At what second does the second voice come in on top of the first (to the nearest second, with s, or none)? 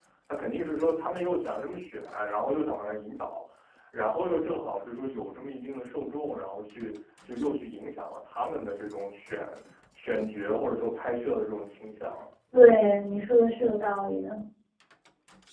none